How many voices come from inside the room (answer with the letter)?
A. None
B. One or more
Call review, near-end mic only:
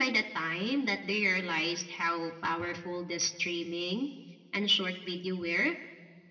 A